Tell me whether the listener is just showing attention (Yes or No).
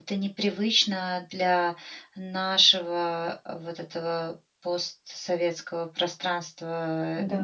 Yes